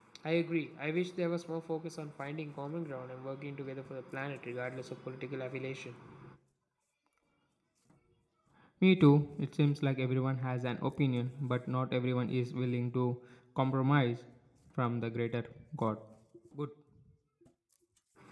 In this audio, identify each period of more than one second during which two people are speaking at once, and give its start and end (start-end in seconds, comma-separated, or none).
none